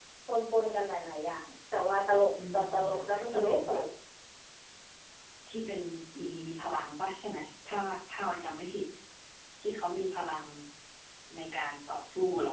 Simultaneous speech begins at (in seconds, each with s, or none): 2.4 s